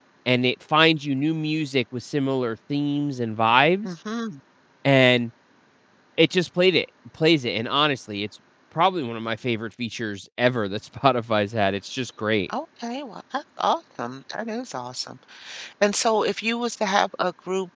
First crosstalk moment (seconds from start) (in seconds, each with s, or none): none